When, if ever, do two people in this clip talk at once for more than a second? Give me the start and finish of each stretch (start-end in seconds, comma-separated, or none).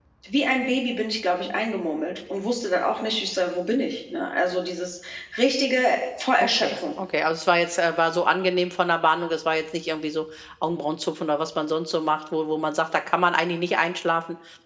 none